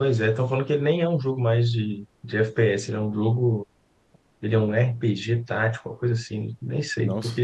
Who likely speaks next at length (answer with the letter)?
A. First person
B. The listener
A